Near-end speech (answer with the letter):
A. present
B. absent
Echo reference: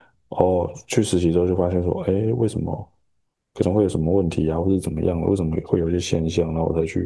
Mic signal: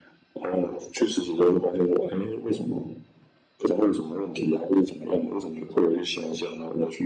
B